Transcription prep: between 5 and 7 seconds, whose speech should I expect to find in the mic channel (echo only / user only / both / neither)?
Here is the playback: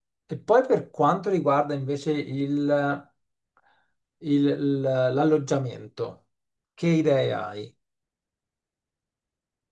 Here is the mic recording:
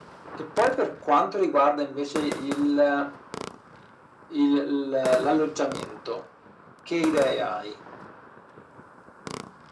echo only